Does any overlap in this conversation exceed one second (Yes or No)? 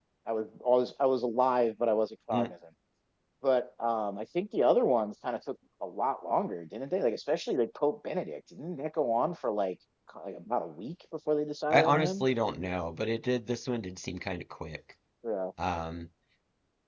No